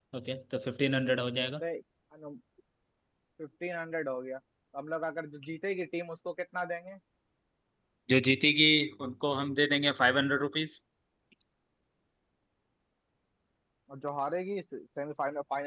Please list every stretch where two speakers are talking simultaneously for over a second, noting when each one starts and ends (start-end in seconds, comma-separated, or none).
none